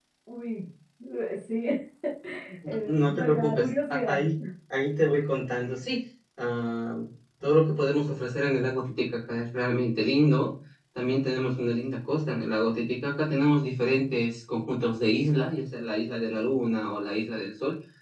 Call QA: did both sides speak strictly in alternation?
No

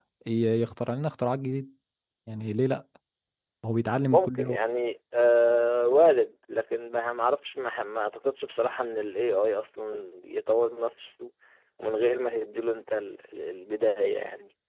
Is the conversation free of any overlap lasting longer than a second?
Yes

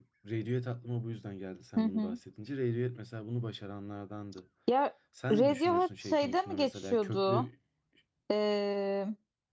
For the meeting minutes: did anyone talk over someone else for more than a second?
Yes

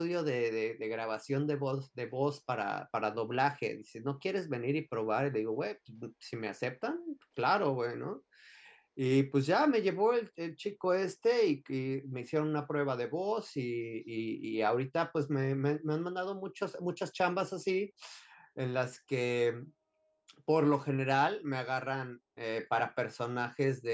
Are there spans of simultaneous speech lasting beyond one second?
No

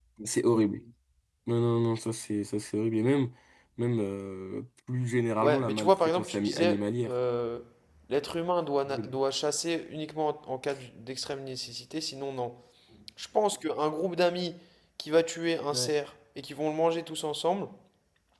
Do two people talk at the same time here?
Yes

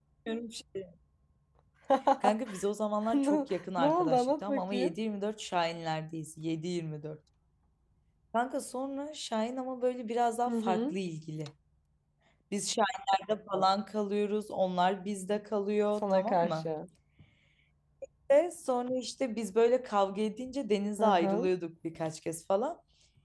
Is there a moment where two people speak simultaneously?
Yes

